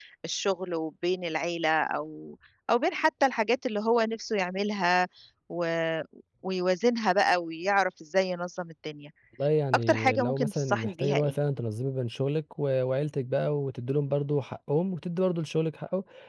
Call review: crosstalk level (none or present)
present